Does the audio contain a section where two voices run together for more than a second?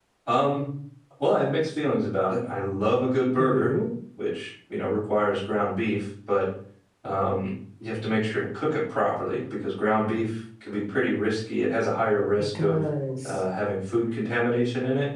No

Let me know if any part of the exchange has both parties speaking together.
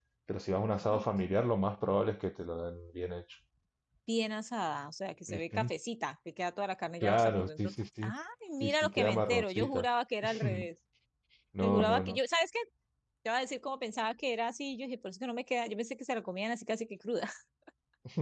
Yes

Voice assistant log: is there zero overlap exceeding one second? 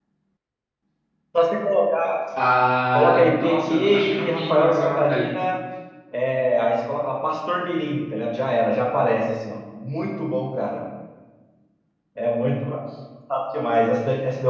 No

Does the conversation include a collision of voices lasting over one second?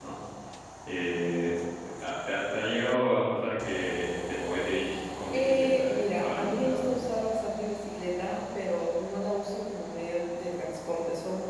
Yes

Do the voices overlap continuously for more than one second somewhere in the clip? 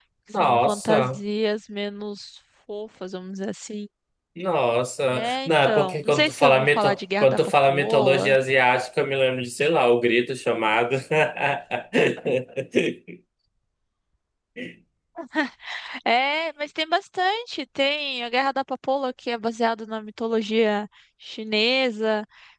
Yes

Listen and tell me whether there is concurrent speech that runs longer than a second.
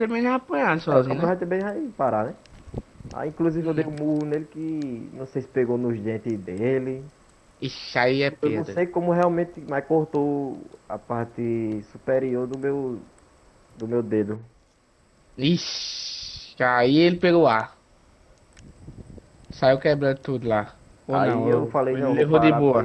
Yes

